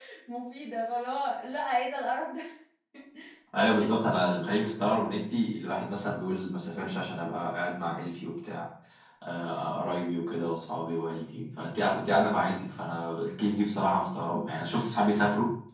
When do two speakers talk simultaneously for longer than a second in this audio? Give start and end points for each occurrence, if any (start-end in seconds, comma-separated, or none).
none